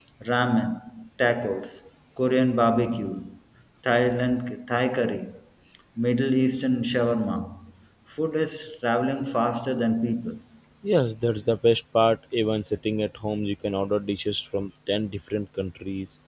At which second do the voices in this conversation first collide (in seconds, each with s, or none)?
none